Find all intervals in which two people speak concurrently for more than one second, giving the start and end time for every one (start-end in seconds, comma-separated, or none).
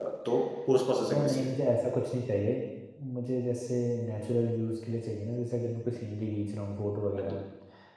none